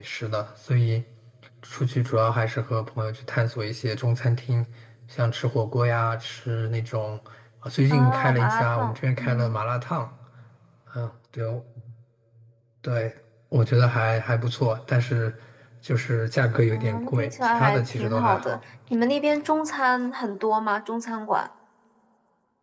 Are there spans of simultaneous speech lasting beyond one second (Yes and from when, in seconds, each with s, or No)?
Yes, from 7.9 s